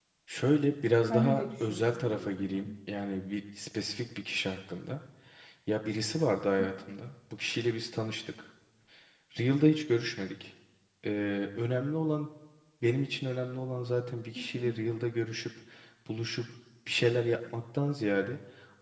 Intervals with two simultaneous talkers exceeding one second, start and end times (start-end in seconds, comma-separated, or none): 1.1-2.7